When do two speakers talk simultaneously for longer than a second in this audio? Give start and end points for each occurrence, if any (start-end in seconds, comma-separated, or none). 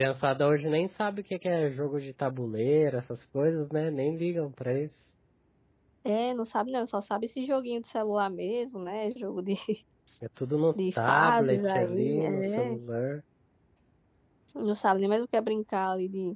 10.8-12.8